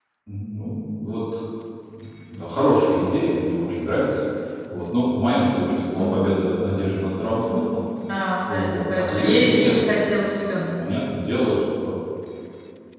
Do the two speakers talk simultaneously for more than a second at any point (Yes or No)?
Yes